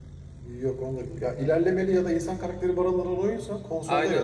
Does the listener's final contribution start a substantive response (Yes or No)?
Yes